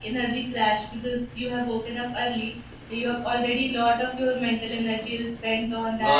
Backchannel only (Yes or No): No